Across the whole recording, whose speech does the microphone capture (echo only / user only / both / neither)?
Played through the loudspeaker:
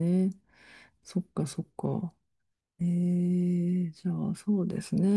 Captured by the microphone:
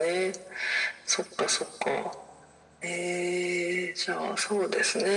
echo only